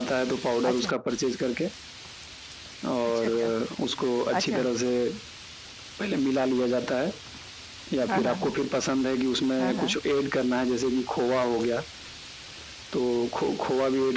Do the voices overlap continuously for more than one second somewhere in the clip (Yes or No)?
No